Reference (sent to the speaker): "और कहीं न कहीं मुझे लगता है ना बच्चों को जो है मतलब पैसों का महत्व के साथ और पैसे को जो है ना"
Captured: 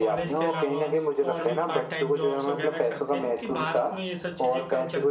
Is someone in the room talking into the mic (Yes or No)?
Yes